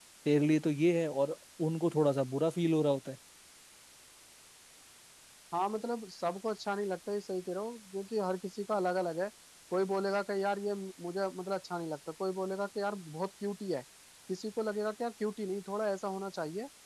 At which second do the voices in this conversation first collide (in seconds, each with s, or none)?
none